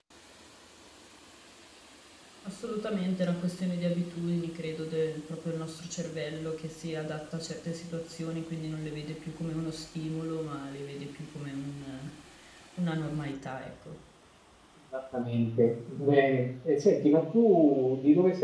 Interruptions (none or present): none